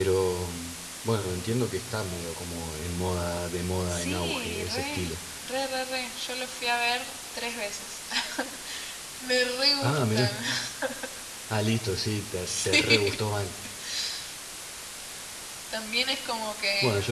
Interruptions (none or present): present